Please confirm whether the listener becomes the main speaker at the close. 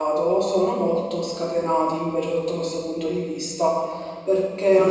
Yes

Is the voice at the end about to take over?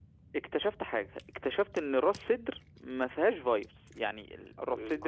Yes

